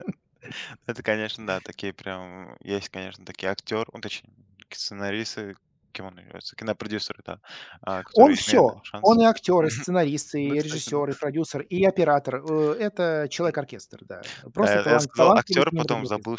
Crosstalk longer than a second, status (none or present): present